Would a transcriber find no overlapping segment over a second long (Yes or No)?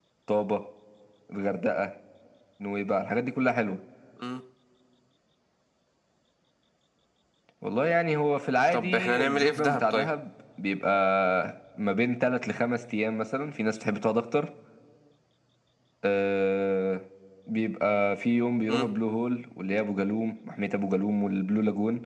No